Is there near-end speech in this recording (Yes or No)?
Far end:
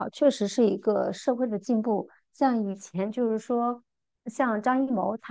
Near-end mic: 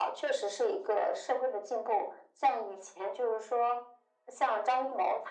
No